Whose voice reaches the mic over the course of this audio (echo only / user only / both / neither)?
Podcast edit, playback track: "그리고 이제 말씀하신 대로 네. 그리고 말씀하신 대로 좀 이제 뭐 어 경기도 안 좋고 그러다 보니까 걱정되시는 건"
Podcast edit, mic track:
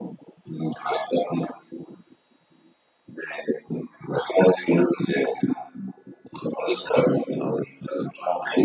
echo only